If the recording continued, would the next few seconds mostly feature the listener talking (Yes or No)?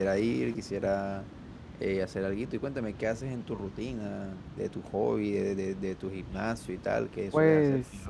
Yes